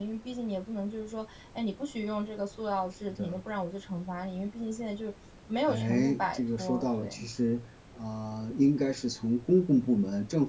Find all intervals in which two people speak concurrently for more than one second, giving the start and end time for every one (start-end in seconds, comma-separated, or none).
5.7-7.3